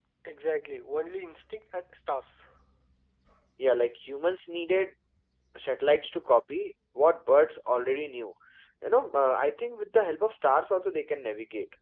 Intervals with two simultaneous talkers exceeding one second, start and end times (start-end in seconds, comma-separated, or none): none